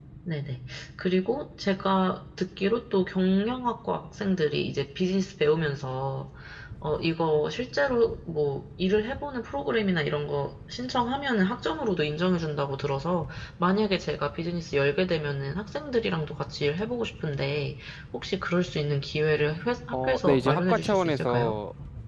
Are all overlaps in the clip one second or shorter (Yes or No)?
No